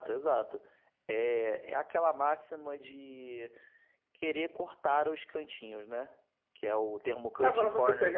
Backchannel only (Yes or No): No